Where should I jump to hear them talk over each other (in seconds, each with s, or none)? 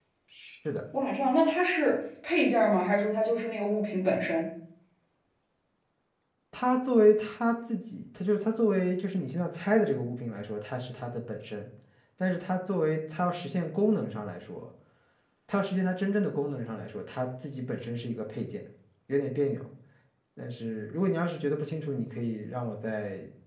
none